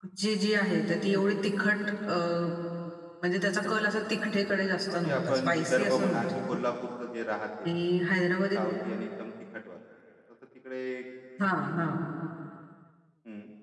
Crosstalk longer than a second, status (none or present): present